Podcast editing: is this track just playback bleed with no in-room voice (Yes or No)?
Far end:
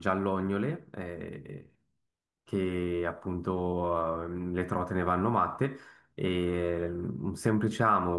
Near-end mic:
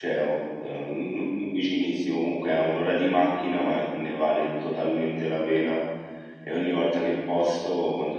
No